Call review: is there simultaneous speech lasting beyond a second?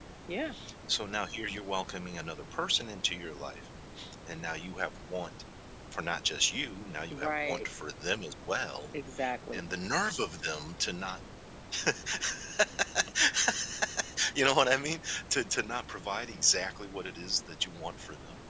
No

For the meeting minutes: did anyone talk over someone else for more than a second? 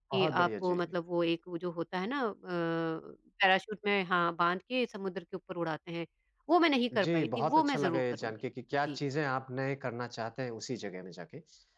Yes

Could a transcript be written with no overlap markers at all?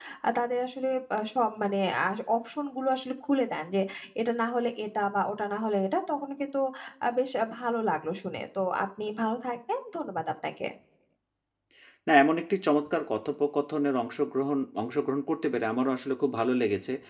Yes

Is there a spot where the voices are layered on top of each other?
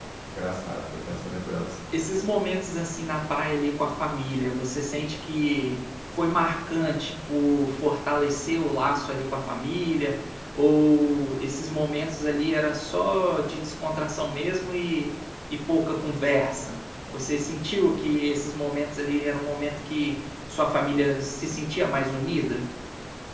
No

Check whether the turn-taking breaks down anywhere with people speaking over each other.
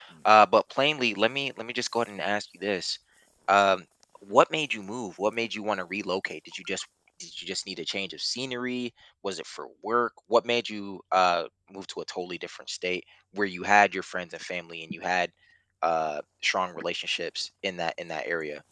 No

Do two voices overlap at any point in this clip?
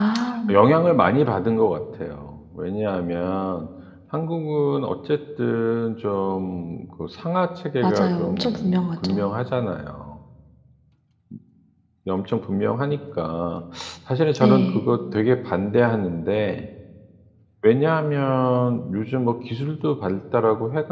Yes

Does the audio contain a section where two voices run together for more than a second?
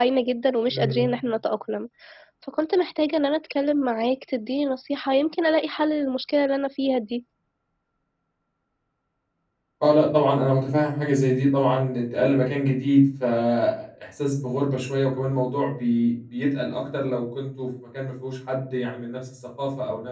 No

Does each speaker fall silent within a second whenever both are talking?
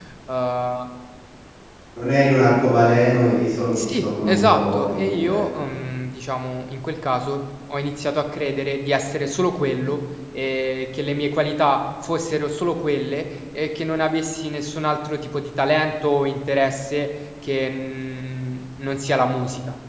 No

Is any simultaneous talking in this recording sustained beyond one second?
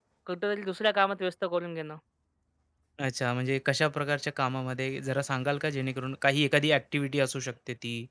No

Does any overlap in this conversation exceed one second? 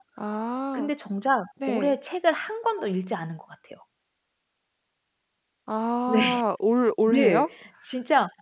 No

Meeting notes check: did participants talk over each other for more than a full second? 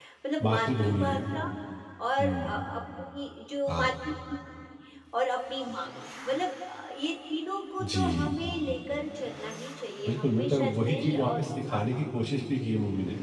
Yes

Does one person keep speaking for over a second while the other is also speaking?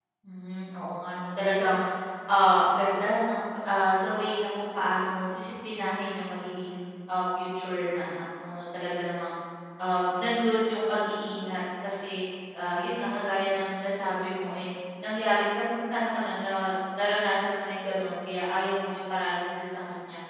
No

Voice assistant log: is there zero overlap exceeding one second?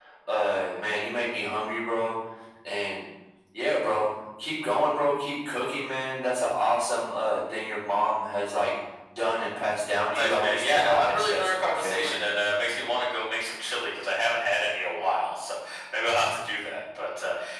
No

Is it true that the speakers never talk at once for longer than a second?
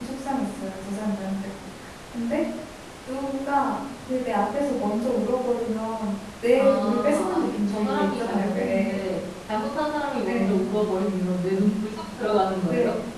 No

